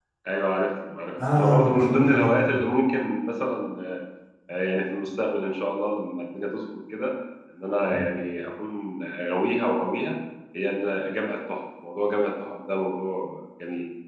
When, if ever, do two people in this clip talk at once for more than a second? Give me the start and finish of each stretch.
1.4-2.6

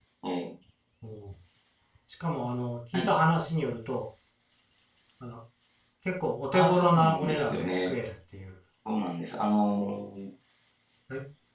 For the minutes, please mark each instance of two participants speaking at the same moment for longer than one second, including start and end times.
6.5-7.9

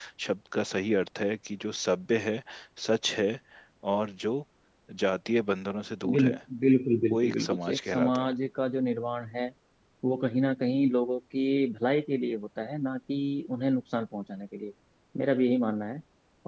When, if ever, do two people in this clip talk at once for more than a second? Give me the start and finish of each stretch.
7.1-8.3

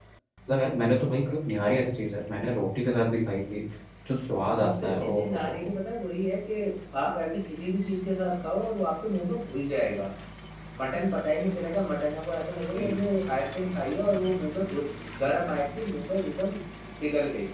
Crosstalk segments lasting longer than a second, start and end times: 4.5-5.7

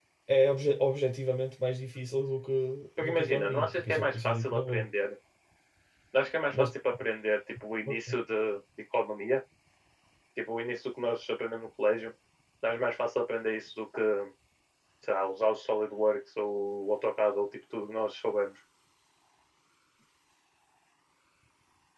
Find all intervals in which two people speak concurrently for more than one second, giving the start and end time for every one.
3.0-4.9

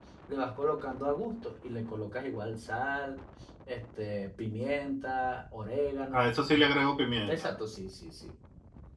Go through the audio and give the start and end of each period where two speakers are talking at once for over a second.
none

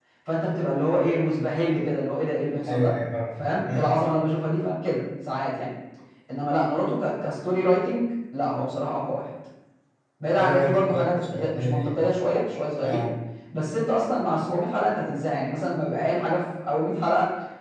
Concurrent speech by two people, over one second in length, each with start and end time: 10.4-12.0

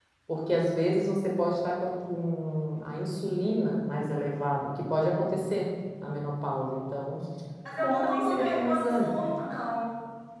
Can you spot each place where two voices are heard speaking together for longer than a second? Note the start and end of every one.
7.8-9.3

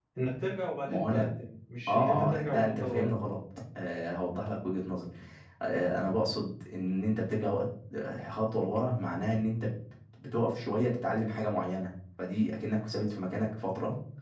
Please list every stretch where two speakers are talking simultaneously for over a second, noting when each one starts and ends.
1.9-3.1

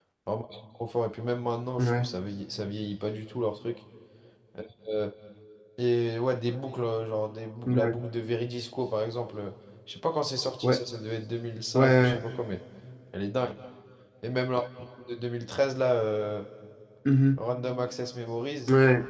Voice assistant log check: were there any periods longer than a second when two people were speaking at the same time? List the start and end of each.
none

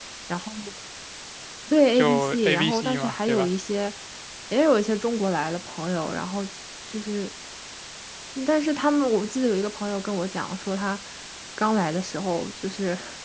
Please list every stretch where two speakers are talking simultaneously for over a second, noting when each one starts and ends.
1.9-3.5

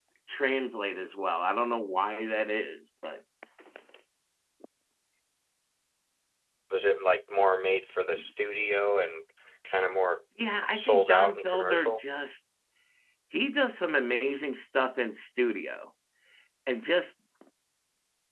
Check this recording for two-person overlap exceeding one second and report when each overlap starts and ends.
10.7-12.0

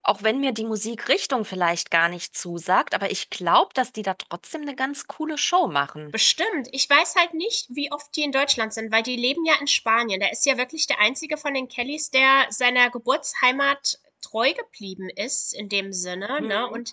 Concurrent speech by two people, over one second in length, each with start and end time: none

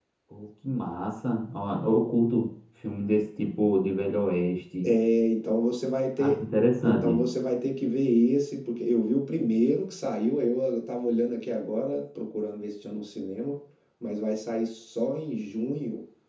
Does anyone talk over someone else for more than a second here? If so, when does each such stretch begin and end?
none

